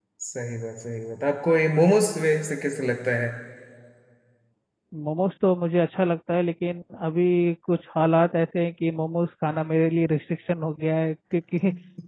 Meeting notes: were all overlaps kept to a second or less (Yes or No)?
Yes